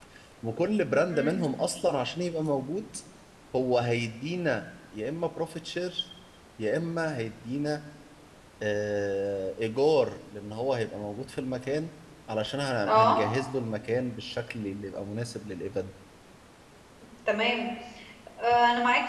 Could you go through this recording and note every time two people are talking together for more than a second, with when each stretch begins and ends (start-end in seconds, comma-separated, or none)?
none